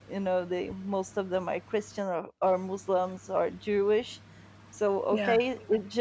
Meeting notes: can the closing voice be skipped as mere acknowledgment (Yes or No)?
Yes